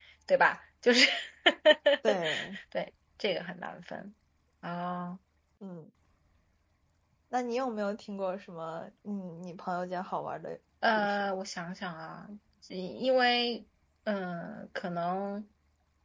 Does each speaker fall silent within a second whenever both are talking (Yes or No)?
Yes